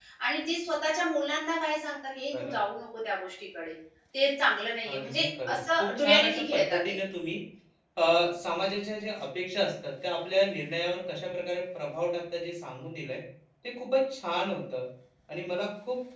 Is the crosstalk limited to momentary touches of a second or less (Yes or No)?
No